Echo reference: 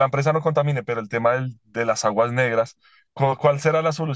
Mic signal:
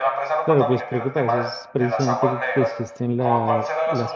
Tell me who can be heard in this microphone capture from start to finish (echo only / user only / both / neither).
both